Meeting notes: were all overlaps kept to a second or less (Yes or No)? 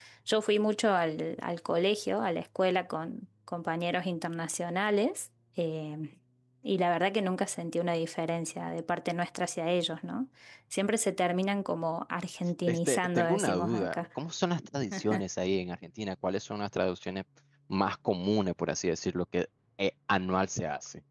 No